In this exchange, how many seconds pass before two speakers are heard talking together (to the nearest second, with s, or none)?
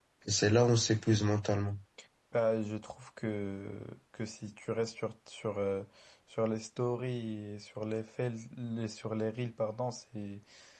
none